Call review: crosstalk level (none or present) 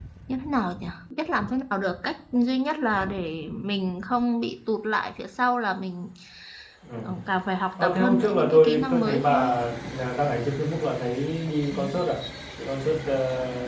present